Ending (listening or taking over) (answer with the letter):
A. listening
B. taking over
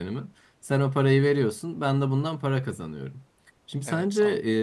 A